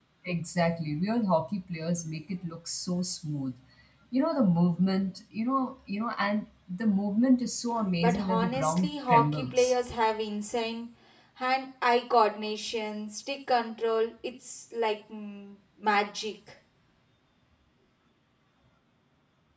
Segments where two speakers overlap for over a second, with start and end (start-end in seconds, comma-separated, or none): 8.0-9.7